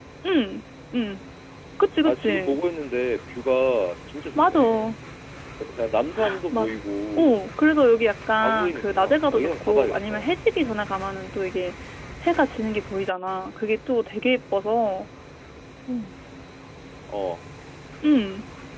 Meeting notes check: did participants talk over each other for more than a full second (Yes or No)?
Yes